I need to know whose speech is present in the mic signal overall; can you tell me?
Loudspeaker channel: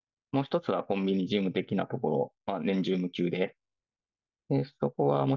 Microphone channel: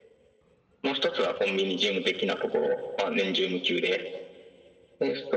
echo only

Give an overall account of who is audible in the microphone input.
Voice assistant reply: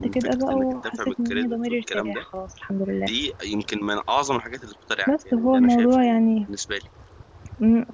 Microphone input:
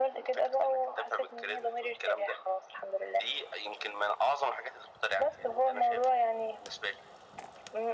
echo only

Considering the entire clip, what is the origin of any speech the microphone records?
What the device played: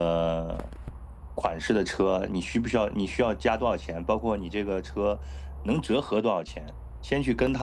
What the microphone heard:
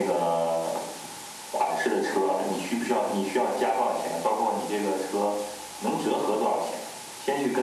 echo only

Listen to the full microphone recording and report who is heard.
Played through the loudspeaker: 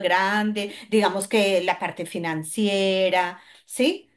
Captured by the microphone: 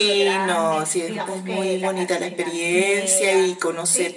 both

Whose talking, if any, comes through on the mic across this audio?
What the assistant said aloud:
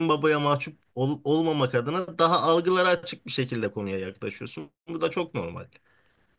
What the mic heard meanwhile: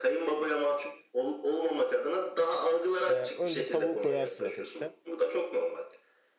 both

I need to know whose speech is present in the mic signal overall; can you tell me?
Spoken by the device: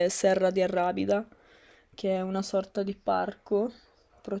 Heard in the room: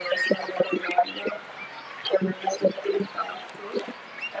echo only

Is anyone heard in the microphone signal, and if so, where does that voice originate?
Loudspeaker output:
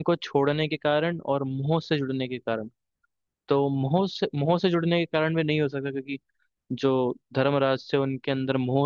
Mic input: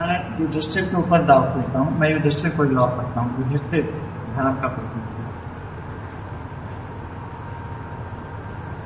user only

